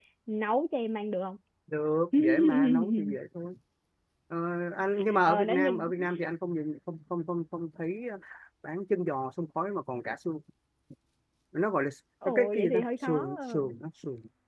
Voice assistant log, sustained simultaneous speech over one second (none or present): present